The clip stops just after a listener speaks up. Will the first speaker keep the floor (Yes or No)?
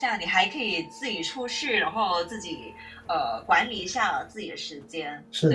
No